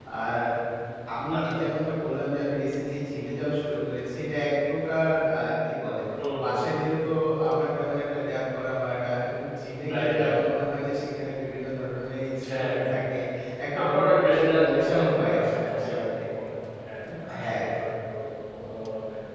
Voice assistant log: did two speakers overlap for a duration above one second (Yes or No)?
Yes